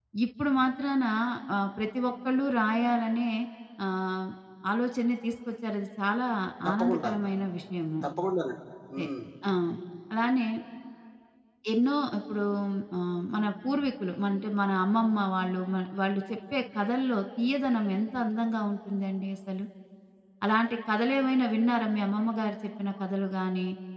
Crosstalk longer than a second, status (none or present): none